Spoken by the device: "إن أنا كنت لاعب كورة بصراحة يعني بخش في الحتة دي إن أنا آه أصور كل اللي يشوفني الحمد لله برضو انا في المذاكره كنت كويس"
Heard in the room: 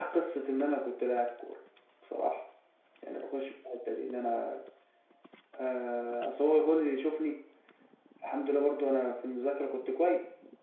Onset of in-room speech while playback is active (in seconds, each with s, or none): none